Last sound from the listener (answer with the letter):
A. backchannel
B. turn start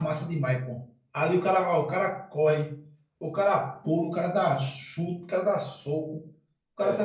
A